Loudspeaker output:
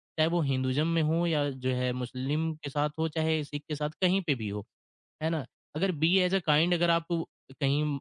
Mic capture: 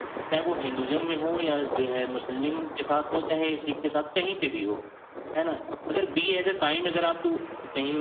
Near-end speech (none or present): none